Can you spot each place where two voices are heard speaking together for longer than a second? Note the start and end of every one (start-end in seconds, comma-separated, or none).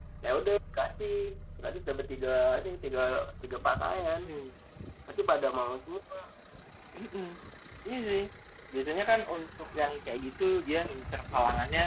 none